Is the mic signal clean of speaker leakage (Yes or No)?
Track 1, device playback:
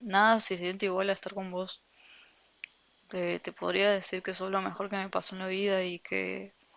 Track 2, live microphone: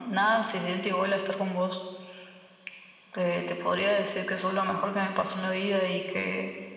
No